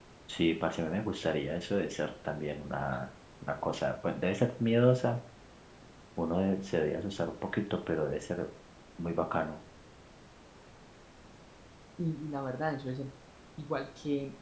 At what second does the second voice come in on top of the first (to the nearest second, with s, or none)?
none